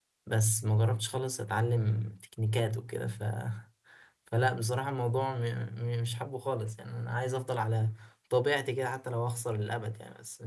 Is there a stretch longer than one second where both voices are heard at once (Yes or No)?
No